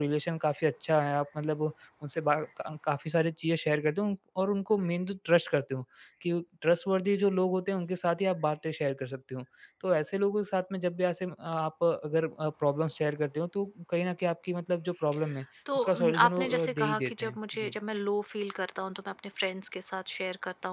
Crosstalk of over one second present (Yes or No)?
Yes